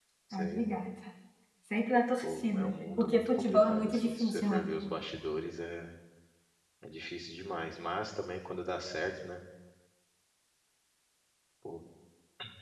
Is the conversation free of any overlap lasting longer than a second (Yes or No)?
No